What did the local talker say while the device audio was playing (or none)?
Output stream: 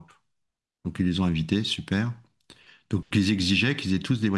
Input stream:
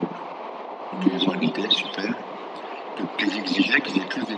Mais